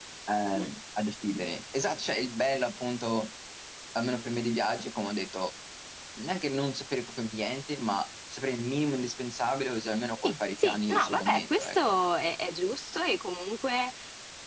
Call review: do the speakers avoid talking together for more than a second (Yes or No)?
No